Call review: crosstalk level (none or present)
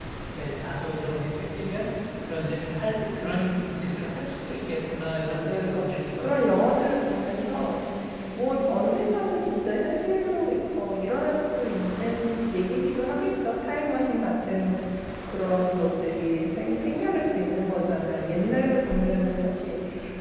present